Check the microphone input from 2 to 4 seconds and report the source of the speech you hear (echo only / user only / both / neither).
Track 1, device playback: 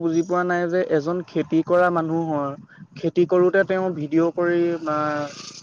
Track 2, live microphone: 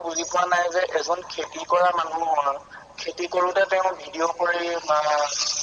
echo only